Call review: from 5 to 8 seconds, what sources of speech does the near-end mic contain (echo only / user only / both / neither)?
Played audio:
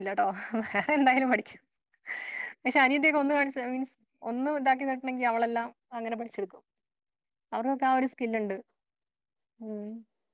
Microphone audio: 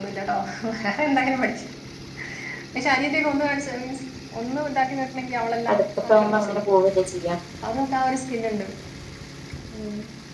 both